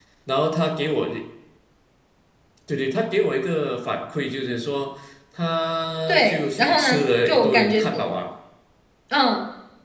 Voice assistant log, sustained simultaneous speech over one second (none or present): present